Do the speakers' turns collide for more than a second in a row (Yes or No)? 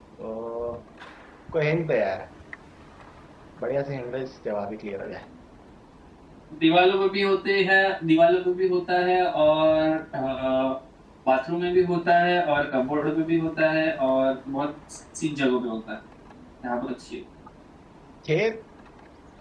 No